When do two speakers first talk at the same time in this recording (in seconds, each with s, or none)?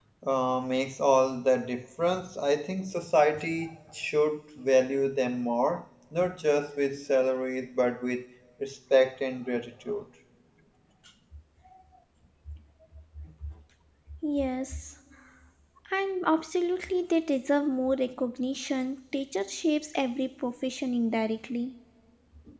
none